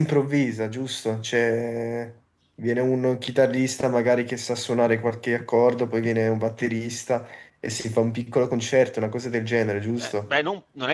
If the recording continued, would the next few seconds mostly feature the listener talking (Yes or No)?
Yes